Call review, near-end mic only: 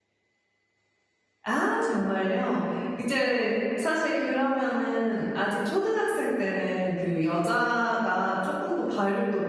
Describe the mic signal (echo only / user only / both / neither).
user only